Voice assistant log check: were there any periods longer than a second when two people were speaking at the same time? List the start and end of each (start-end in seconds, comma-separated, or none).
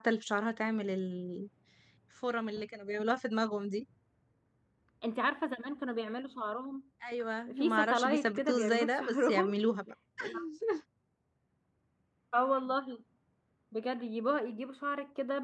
7.6-9.6